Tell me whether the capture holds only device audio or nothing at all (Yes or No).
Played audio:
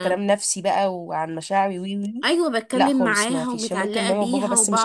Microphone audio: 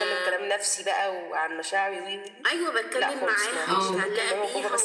No